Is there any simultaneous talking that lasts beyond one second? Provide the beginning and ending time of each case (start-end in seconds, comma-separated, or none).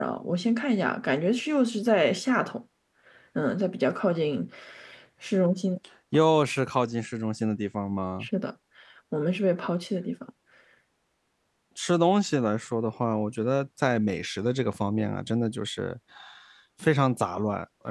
none